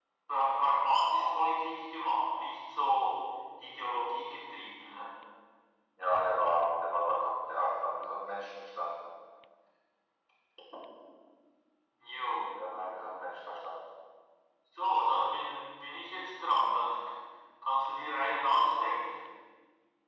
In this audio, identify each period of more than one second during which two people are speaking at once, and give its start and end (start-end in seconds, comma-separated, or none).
none